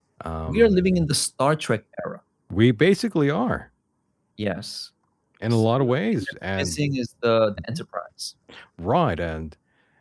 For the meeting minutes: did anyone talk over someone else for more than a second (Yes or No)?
Yes